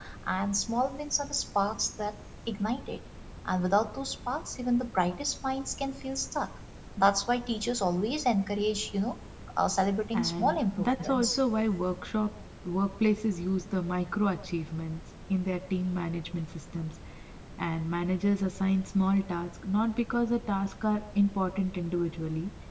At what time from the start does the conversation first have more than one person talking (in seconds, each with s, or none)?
10.1 s